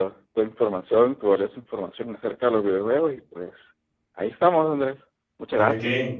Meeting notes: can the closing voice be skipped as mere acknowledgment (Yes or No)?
No